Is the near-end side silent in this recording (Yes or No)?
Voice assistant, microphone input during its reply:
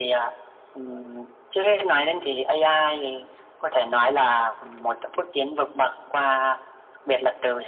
Yes